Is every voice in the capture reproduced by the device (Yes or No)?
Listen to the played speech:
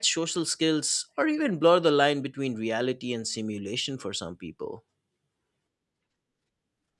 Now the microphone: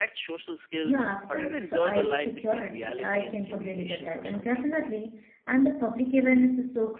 No